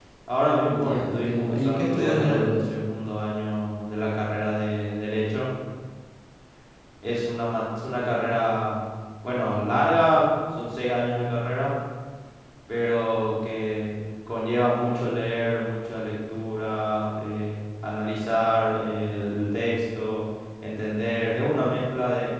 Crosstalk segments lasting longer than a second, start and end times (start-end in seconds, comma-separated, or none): 0.7-2.7